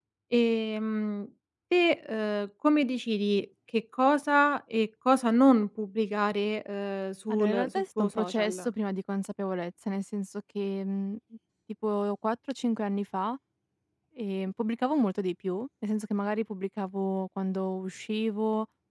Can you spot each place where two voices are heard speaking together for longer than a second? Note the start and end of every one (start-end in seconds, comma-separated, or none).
7.3-8.7